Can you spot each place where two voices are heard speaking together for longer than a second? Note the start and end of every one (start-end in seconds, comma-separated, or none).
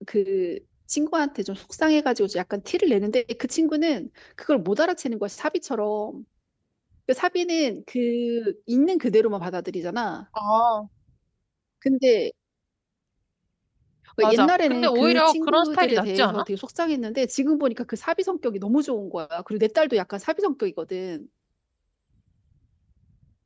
14.3-16.4